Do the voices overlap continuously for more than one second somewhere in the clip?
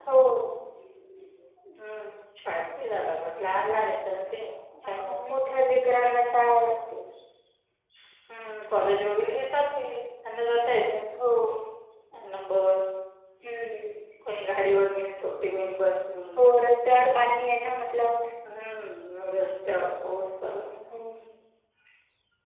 No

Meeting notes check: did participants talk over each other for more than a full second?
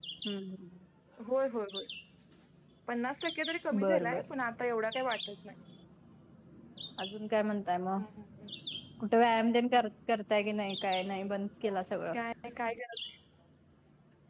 No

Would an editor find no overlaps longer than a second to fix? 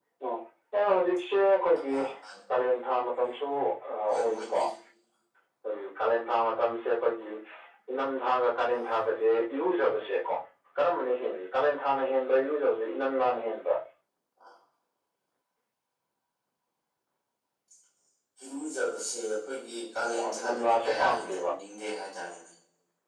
No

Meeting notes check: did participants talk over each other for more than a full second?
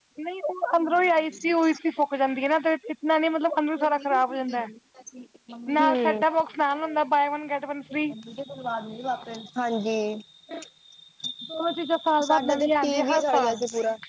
Yes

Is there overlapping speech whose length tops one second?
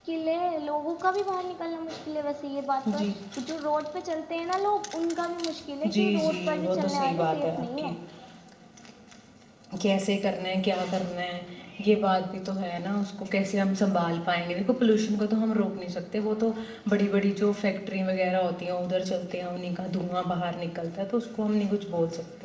Yes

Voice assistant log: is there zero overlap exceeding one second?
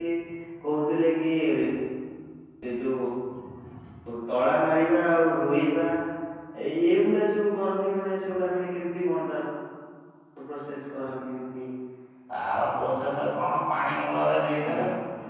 Yes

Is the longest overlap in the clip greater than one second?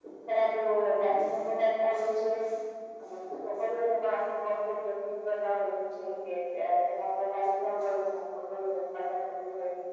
No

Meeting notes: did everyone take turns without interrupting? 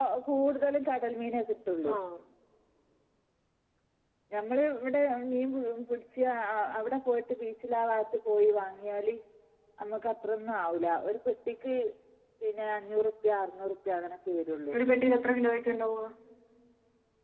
Yes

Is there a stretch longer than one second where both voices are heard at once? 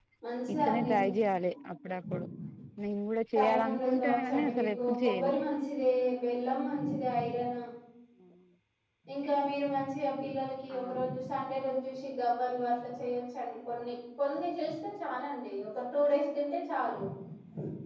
Yes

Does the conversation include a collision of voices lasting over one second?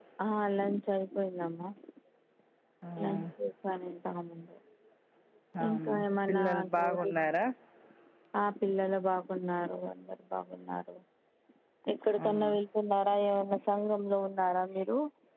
Yes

